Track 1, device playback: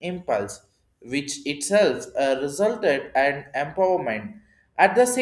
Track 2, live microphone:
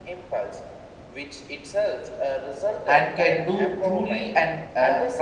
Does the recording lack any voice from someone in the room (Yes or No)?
No